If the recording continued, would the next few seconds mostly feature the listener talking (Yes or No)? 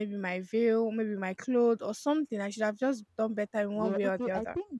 Yes